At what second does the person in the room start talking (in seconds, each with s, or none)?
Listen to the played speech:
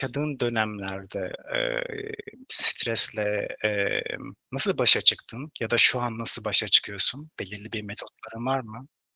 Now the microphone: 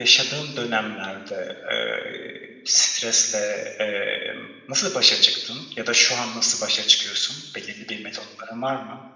none